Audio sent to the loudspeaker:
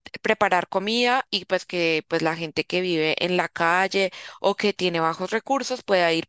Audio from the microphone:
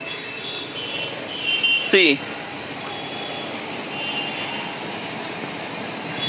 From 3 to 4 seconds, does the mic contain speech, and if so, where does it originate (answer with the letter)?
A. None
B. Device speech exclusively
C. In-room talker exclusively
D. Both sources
A